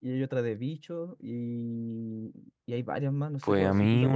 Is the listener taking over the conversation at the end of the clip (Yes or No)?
Yes